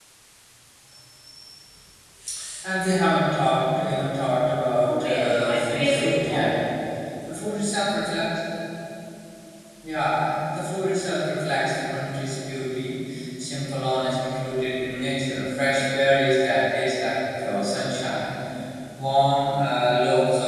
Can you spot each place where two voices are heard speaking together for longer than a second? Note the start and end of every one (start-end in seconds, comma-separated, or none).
4.9-6.6